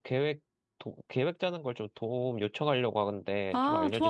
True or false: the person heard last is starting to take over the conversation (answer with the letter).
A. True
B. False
A